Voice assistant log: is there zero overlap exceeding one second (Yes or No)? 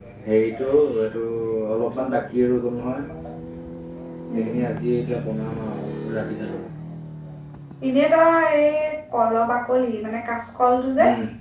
Yes